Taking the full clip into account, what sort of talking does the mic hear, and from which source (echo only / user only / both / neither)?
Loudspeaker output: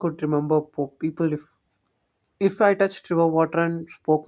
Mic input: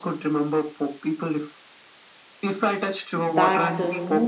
both